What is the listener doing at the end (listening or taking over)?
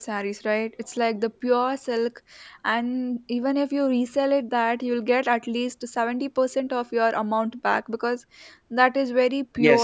taking over